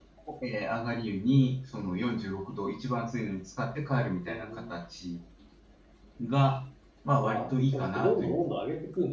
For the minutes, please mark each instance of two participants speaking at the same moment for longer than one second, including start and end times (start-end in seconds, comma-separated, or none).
7.2-8.5